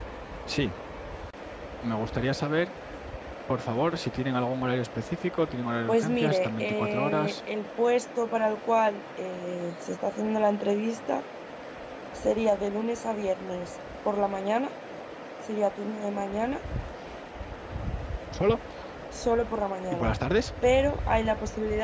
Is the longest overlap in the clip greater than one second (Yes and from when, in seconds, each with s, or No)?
Yes, from 5.9 s